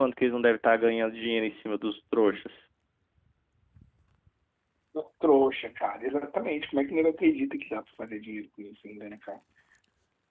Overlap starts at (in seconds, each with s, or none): none